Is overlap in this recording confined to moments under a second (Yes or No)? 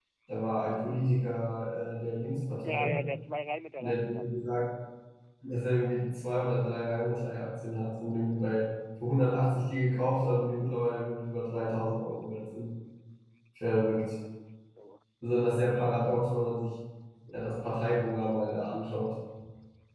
Yes